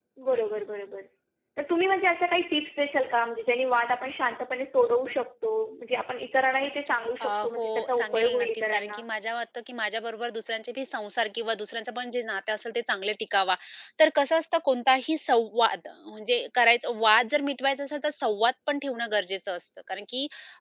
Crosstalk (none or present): present